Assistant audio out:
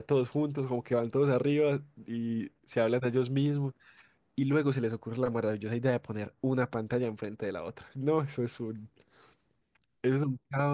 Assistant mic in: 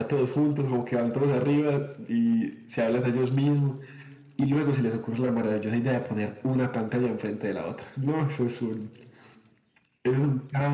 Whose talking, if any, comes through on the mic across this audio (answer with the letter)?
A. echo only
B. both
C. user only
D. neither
A